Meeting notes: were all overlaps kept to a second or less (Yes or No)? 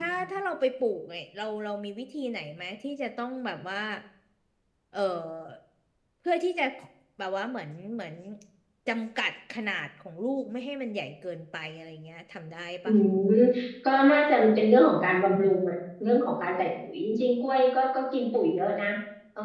Yes